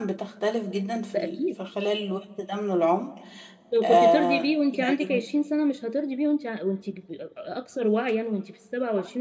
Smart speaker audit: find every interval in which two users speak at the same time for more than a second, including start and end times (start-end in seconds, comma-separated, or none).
3.8-5.3